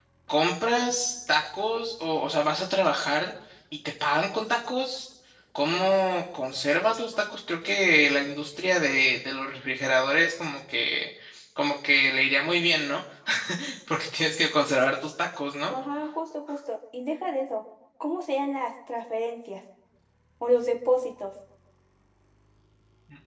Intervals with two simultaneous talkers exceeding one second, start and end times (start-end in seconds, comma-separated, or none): none